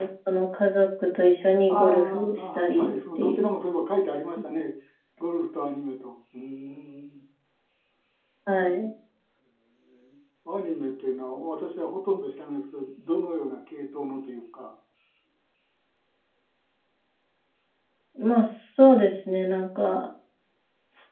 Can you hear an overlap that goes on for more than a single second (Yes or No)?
Yes